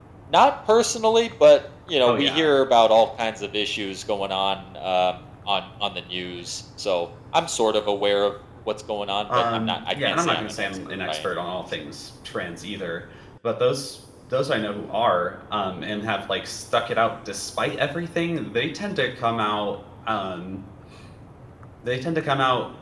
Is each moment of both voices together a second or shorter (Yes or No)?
No